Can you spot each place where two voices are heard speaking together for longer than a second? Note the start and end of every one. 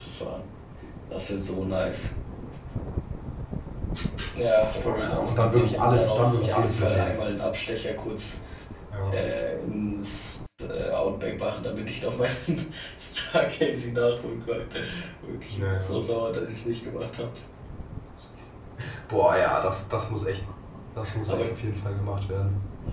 4.7-7.1

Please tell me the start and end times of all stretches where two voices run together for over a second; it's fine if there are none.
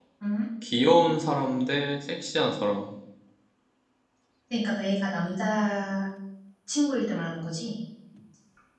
none

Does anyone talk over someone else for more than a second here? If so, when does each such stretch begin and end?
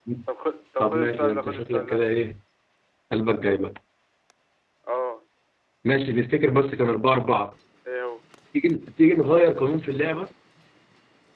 0.8-2.0

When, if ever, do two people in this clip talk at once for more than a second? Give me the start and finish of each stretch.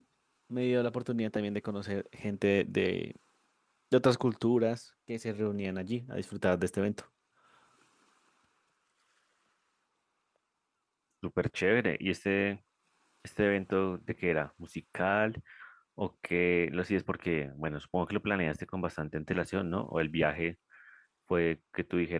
none

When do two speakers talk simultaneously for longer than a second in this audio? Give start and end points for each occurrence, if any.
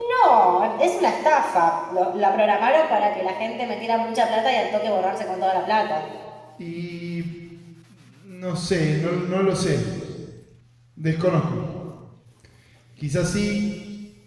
none

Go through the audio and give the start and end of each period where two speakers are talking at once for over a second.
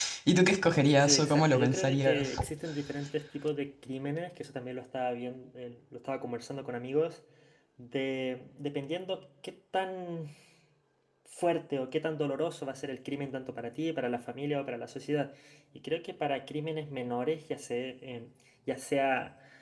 1.0-2.4

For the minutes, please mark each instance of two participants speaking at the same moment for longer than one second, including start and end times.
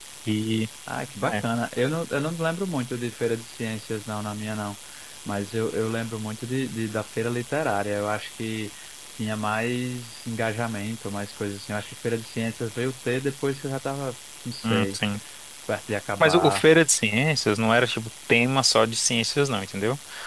none

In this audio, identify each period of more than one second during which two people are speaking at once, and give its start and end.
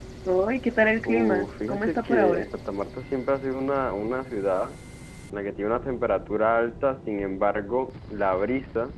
1.1-2.5

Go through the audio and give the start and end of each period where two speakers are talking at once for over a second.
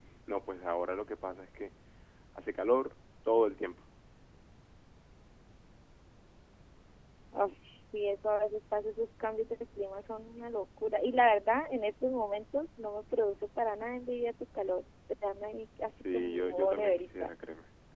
16.1-17.3

